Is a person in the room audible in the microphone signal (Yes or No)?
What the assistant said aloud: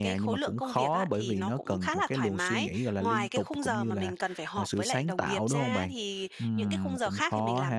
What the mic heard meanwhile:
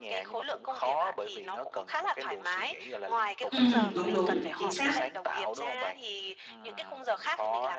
Yes